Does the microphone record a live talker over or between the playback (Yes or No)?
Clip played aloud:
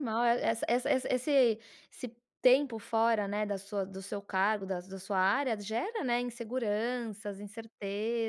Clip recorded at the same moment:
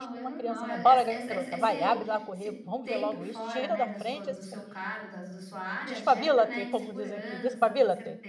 Yes